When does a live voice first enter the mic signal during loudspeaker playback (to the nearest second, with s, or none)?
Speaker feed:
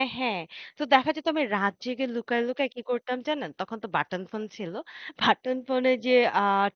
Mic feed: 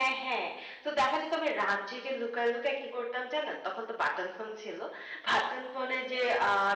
none